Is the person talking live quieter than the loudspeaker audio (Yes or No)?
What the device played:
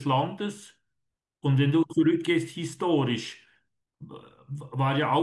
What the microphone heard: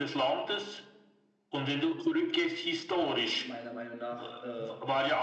Yes